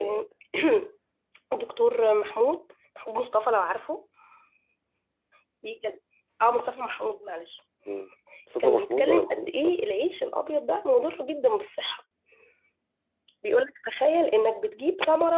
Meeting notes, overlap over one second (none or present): present